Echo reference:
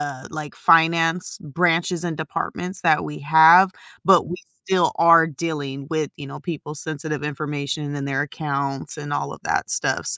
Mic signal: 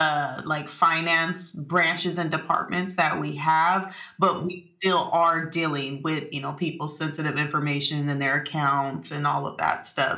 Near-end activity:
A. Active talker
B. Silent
B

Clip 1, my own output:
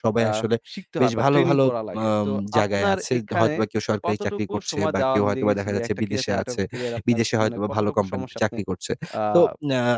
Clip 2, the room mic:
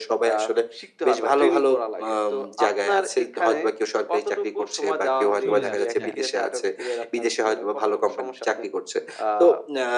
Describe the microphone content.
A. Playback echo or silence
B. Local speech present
B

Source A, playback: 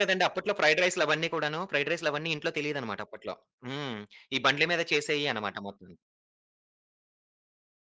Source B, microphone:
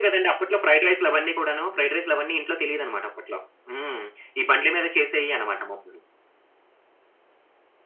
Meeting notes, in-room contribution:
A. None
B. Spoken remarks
A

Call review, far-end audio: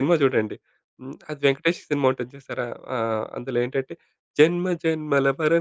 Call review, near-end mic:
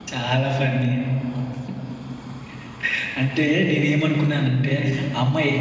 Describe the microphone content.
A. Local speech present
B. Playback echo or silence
A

